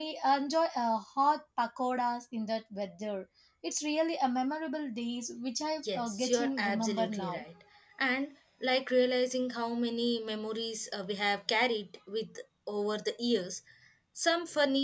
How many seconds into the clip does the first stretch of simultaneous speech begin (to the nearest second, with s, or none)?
6 s